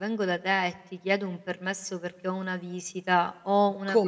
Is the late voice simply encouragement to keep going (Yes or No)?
Yes